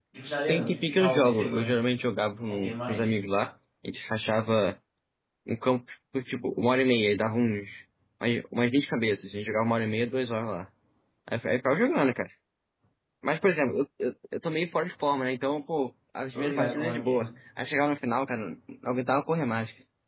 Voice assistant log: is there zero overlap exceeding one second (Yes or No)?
No